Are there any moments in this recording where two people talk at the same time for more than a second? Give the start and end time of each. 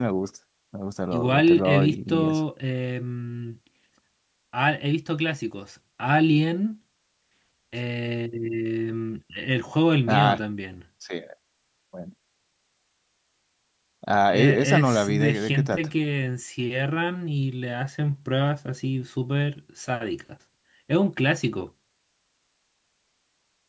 1.1-2.4, 14.3-15.9

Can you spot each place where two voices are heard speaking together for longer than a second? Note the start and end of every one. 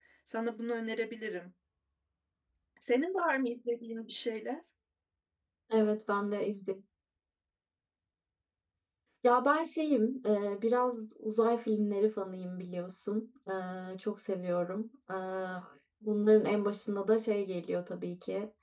none

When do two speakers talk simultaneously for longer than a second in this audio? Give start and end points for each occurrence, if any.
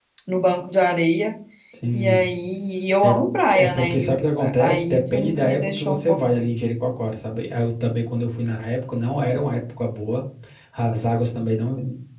3.5-6.2

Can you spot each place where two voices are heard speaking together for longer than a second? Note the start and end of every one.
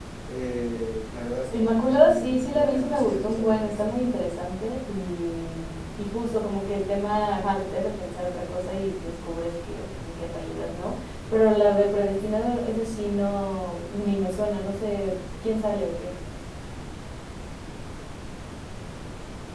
1.5-3.9

